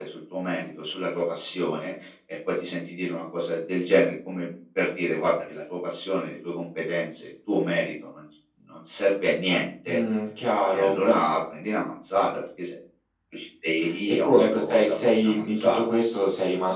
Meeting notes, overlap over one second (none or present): present